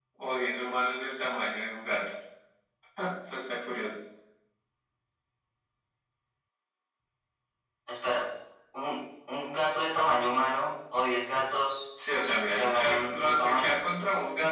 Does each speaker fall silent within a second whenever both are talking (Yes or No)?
No